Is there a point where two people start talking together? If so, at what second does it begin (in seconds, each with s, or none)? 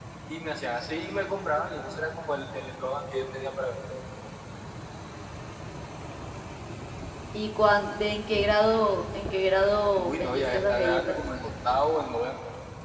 10.0 s